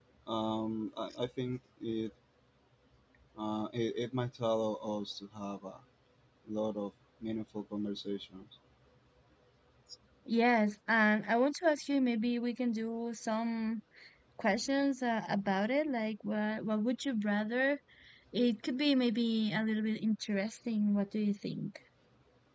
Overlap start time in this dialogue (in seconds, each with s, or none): none